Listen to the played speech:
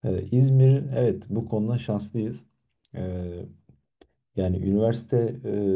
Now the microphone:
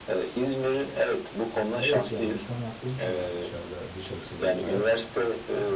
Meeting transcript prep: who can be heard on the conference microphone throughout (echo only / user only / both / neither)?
both